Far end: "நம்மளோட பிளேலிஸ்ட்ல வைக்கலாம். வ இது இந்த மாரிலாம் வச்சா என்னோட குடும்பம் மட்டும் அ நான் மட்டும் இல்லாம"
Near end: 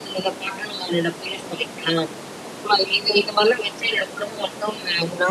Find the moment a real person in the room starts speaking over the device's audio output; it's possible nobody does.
none

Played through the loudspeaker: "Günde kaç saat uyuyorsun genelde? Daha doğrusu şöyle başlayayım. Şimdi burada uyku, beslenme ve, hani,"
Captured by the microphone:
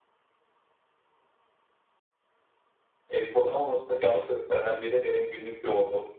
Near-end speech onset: 3.1 s

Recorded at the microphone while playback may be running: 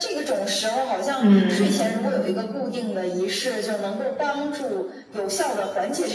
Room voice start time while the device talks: 1.2 s

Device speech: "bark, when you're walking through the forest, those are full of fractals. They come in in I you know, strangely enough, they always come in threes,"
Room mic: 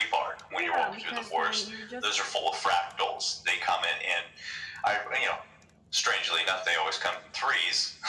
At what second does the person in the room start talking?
0.5 s

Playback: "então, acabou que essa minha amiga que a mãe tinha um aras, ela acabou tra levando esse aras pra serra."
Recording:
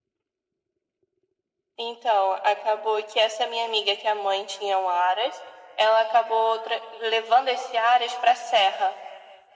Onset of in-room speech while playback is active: none

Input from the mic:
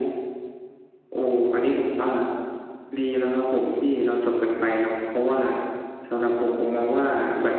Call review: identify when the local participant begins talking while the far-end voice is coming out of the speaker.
none

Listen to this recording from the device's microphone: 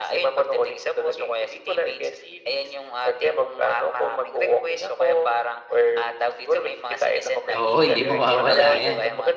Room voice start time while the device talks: 7.5 s

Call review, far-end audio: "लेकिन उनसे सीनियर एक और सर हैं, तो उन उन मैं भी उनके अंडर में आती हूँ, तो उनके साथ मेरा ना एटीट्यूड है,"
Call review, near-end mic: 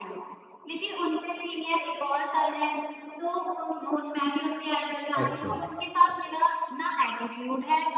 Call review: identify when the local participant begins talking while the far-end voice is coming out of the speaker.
5.2 s

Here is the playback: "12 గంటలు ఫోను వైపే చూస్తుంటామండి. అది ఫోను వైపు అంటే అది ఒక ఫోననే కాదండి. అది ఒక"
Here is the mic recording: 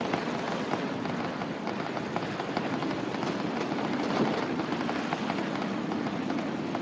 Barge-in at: none

